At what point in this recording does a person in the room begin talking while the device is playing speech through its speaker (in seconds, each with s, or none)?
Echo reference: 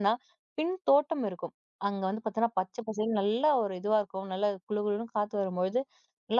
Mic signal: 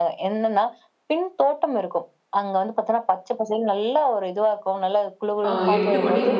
5.5 s